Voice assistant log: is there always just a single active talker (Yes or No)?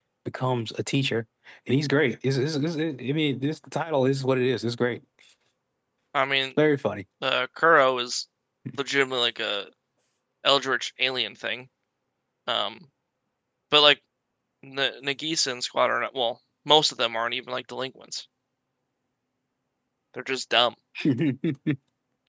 Yes